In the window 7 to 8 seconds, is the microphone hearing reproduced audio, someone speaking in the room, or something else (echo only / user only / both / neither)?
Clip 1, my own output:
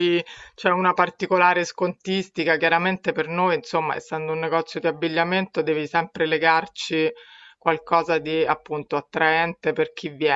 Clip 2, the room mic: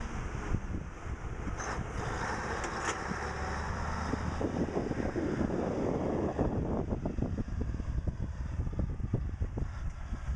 neither